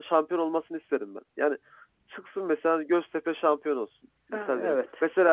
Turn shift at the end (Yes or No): No